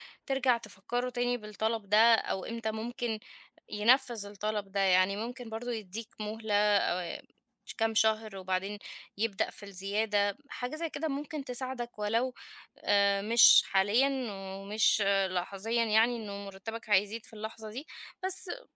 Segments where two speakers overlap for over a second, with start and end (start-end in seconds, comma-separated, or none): none